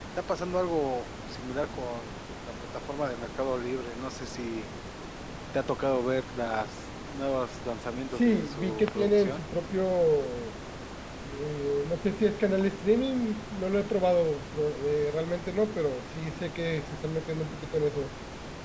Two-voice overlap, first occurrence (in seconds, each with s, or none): 8.2 s